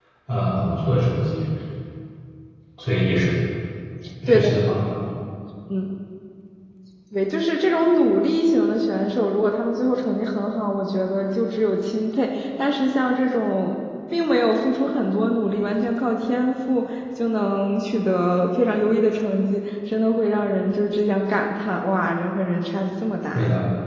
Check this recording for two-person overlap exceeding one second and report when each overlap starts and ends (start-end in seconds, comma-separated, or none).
none